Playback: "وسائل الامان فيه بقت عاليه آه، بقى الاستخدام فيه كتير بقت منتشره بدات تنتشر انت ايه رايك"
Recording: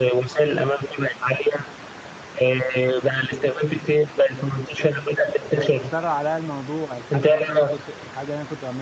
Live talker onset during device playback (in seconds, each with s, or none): 5.5 s